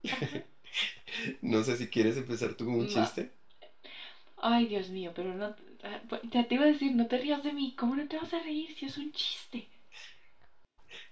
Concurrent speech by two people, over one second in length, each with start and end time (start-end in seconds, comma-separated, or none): none